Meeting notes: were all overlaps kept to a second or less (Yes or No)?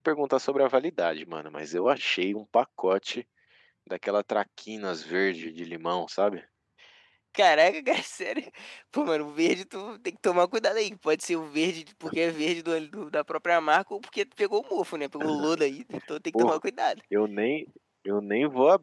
Yes